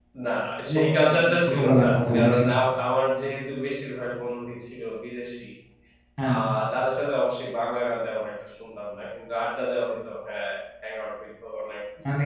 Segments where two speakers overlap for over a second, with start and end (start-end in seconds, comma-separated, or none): 0.7-2.4